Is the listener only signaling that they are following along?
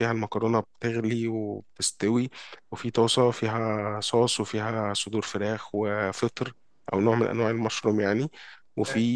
Yes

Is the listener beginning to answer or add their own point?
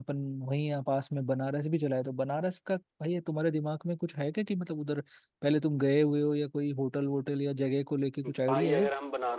Yes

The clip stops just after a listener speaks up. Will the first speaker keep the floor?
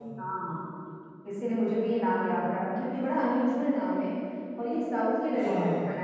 Yes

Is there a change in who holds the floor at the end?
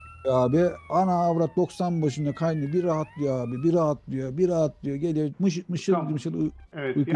Yes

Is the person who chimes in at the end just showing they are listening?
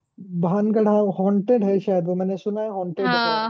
Yes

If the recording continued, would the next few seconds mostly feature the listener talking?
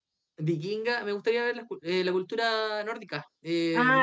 Yes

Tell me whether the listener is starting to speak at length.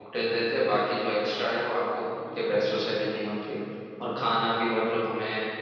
No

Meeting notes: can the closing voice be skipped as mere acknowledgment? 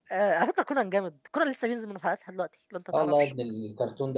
No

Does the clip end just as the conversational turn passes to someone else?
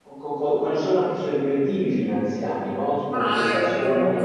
Yes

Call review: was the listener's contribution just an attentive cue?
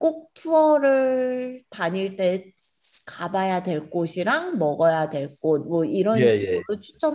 Yes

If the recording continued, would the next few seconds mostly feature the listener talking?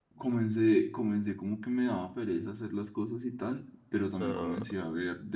No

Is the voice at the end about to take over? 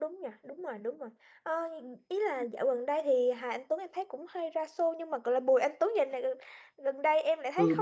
Yes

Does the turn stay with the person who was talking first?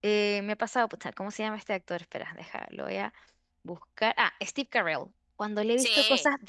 Yes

